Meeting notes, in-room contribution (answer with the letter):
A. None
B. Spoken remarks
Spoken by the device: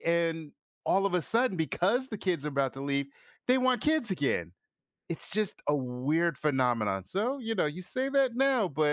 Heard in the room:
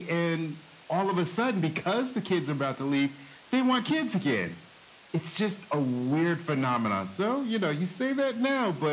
A